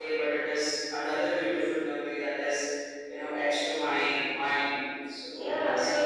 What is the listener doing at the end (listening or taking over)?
taking over